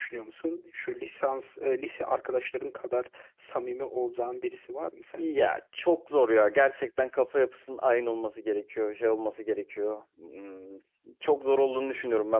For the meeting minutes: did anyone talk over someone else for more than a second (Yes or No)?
No